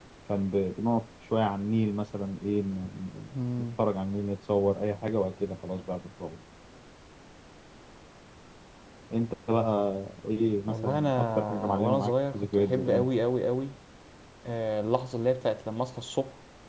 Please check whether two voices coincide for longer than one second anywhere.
Yes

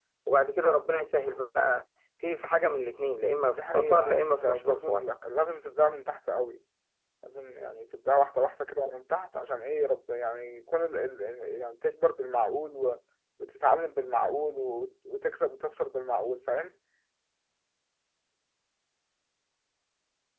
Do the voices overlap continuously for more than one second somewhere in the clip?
Yes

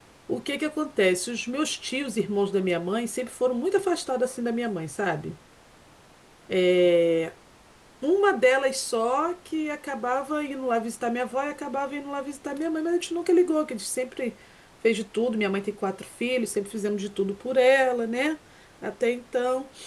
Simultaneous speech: No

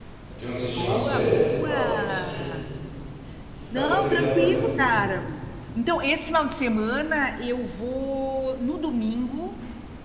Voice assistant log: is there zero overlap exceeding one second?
No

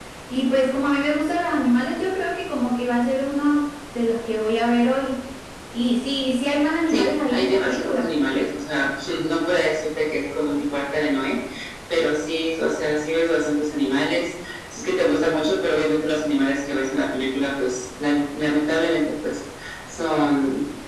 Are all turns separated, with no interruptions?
No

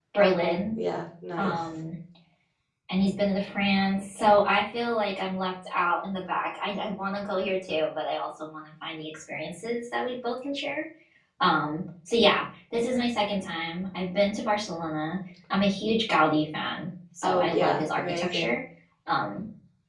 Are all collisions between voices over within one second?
No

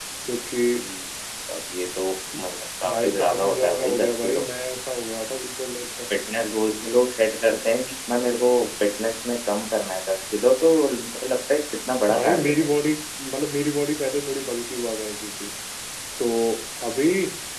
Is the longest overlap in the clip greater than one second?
Yes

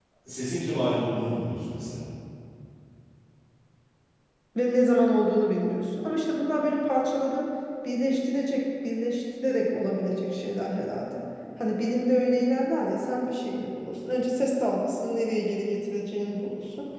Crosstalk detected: No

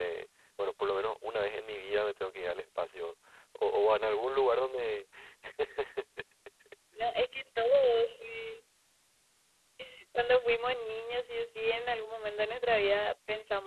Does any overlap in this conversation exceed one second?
No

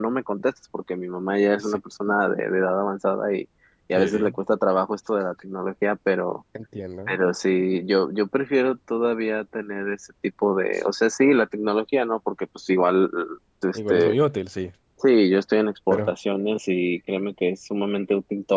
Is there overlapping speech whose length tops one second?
No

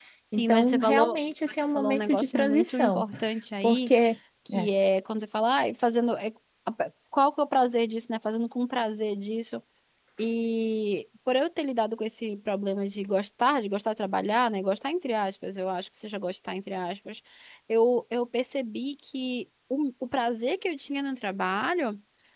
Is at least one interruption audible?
Yes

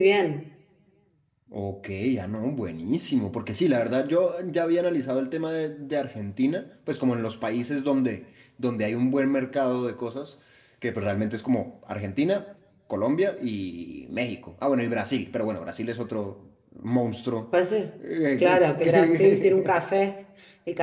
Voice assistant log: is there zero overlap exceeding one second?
No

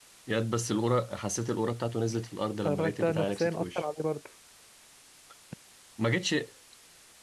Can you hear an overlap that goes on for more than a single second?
Yes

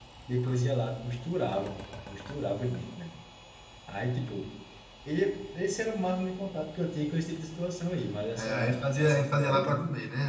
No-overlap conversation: No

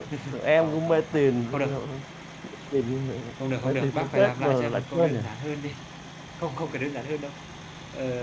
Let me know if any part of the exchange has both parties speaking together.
Yes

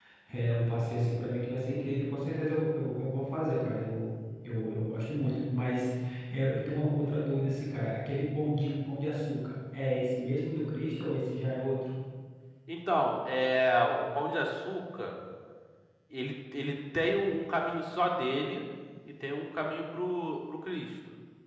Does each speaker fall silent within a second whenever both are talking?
Yes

